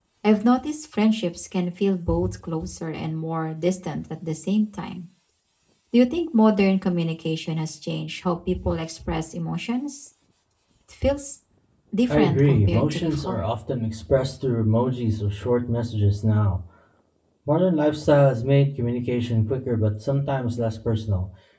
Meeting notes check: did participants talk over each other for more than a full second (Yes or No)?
Yes